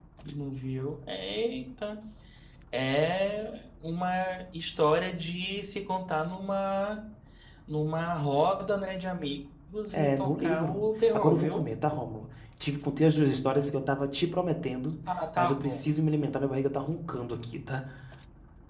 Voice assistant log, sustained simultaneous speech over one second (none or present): present